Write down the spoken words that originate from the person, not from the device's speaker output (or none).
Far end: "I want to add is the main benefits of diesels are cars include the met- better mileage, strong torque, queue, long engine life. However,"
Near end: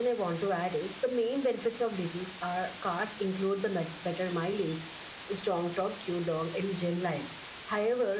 none